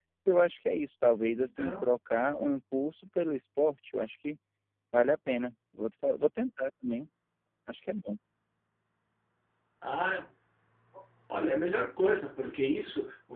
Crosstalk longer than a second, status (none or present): none